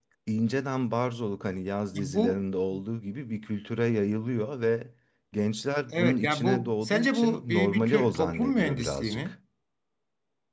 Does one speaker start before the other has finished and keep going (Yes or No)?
Yes